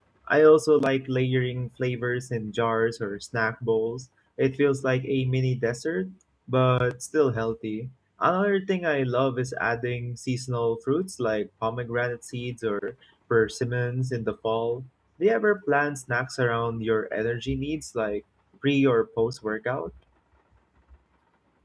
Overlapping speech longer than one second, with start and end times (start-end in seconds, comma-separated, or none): none